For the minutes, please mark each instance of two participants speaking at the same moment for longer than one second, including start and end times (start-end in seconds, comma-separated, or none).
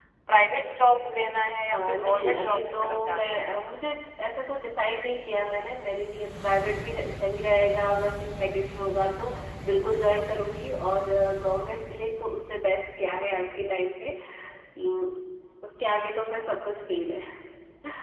1.7-3.6